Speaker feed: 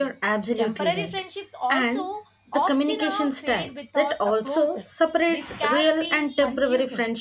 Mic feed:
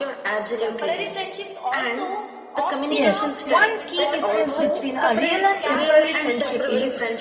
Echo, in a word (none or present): present